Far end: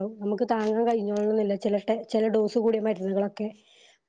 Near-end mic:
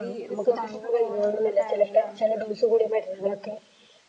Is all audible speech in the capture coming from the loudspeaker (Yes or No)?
No